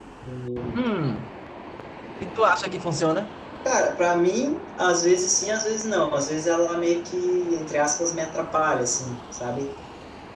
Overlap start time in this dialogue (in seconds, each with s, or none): none